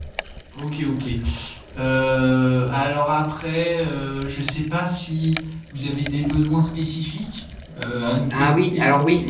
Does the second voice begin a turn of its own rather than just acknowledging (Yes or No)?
Yes